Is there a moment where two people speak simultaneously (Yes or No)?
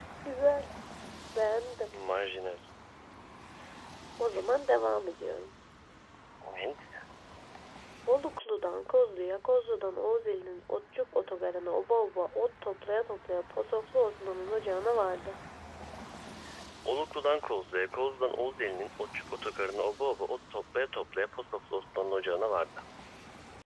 No